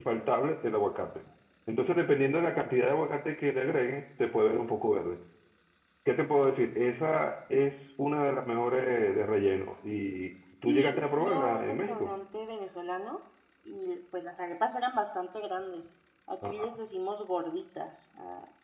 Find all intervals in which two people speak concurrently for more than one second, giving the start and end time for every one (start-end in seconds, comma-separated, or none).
10.7-12.1